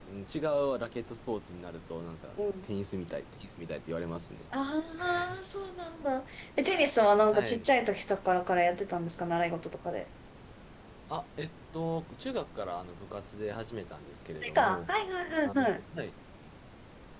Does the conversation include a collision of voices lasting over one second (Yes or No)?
No